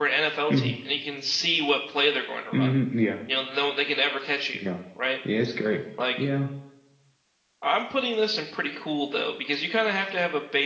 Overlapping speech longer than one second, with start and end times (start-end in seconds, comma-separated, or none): none